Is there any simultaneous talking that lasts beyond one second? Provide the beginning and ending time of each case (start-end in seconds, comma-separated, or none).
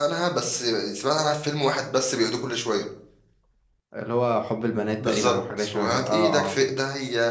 5.0-6.6